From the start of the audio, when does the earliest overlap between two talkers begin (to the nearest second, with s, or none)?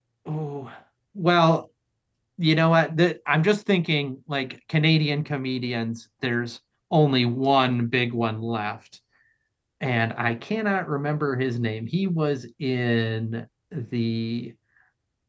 none